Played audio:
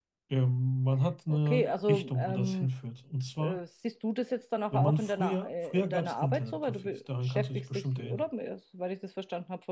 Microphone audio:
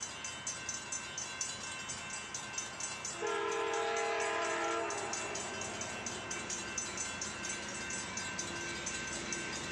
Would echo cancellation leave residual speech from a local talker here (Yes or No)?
No